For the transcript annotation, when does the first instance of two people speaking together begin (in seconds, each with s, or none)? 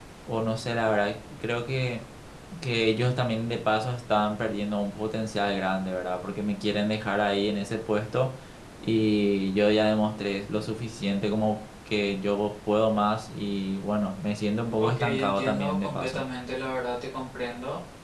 14.8 s